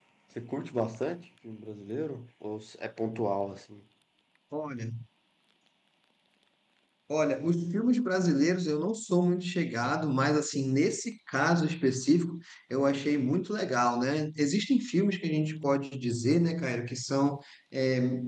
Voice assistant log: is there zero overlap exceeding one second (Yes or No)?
Yes